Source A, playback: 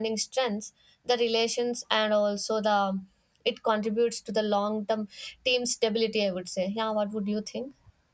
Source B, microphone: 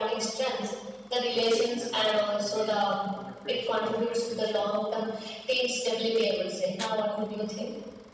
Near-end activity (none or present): present